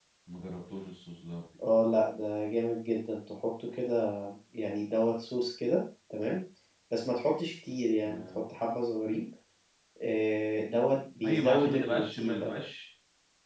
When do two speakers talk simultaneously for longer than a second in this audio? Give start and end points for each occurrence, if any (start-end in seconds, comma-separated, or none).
11.2-12.5